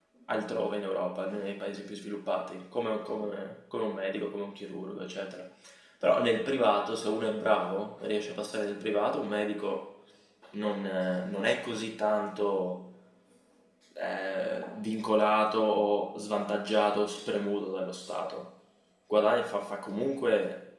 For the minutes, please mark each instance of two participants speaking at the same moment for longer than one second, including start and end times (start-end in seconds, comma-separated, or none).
none